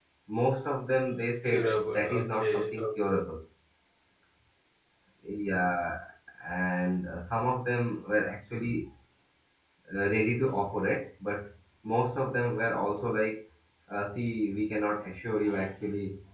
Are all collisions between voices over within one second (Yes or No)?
No